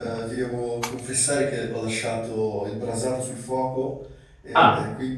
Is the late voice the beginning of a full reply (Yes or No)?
No